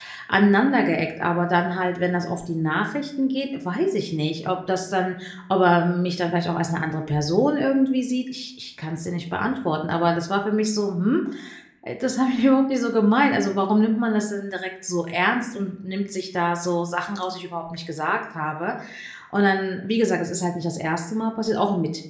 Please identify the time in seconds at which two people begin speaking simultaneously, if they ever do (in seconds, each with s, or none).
none